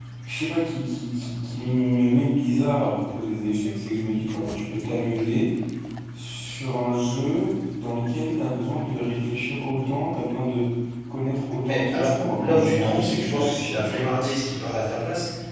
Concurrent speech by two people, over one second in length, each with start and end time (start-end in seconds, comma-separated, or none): 11.6-14.0